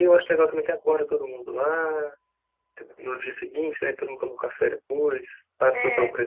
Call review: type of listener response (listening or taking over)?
listening